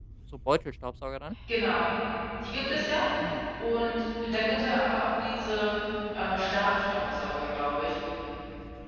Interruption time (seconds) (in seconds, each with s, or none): none